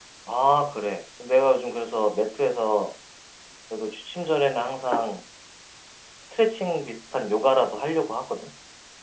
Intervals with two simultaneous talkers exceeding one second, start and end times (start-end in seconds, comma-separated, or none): none